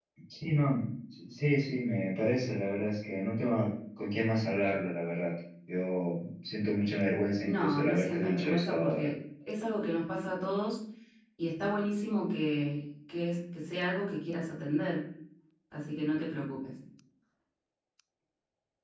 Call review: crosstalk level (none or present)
present